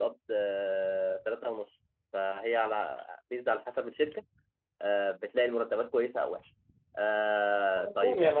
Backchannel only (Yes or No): No